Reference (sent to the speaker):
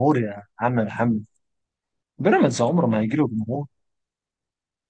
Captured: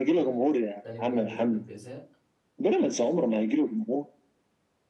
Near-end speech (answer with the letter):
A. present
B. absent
A